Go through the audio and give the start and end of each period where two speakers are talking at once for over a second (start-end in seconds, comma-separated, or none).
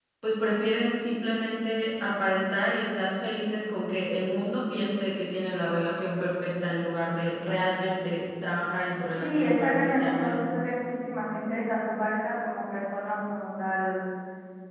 9.2-10.4